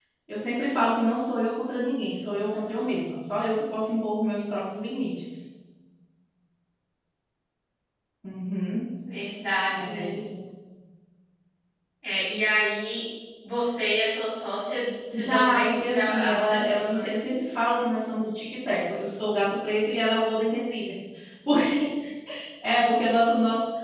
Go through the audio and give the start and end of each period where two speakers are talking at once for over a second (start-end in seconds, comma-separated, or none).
15.2-17.1